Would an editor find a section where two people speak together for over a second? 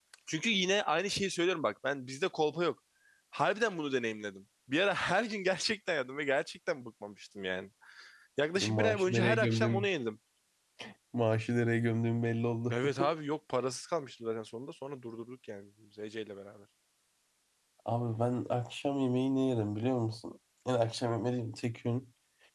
Yes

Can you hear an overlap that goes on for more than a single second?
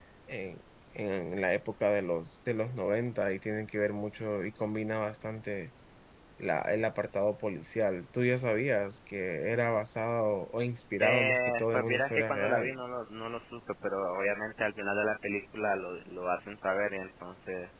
Yes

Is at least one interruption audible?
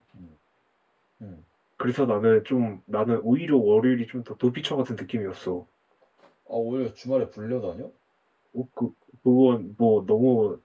No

